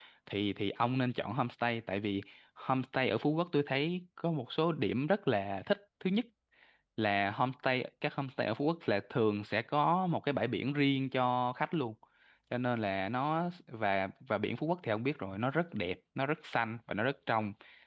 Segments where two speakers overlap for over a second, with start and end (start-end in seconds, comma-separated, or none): none